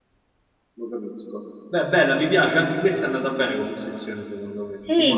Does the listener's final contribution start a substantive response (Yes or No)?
Yes